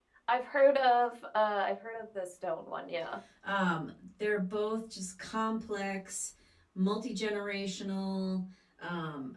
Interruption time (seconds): none

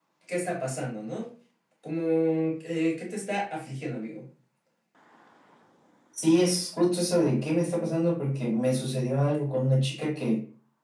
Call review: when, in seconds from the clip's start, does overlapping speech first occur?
none

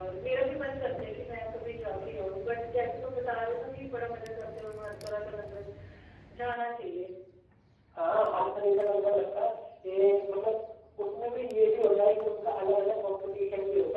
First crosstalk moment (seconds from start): none

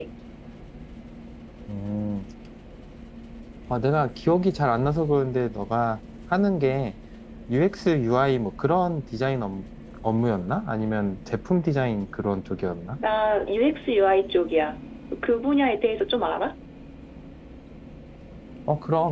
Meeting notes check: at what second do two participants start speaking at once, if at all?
none

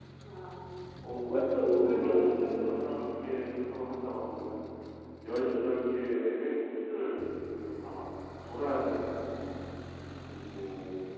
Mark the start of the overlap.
1.1 s

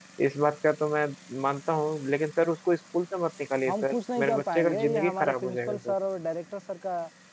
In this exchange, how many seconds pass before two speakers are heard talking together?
3.7 s

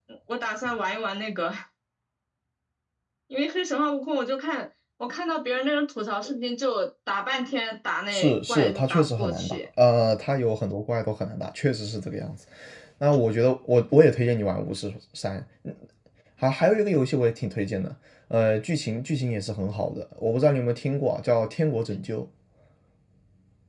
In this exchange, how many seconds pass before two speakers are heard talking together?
8.1 s

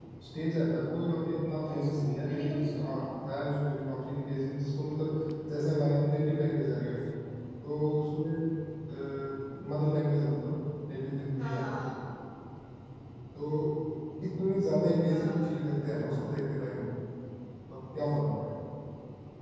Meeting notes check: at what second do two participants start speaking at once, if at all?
1.7 s

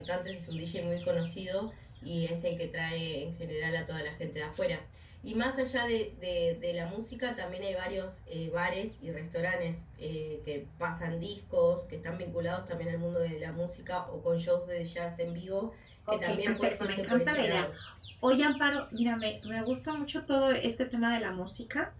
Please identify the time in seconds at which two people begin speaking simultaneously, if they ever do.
16.1 s

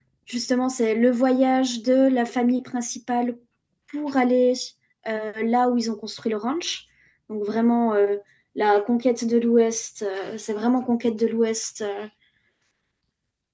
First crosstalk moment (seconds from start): none

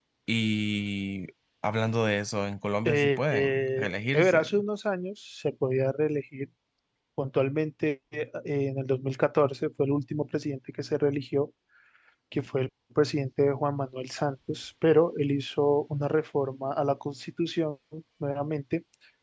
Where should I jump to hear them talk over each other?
2.9 s

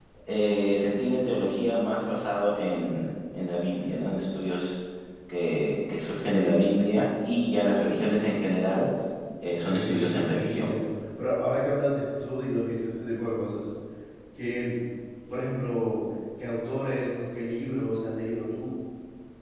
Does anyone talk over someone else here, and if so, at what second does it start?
9.5 s

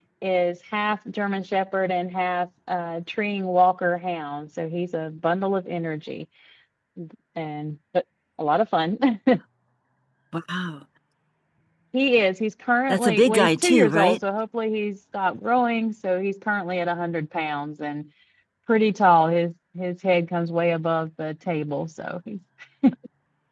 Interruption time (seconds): 12.9 s

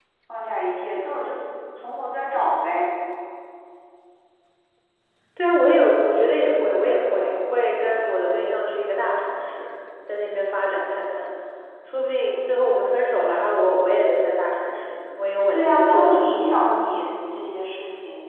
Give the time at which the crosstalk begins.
15.5 s

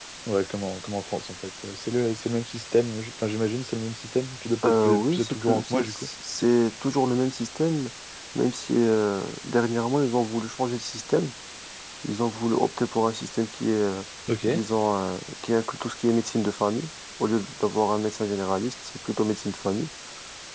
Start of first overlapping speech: 4.6 s

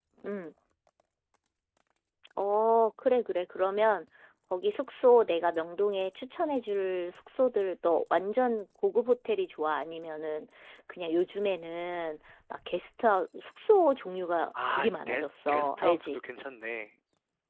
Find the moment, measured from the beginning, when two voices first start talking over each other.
14.5 s

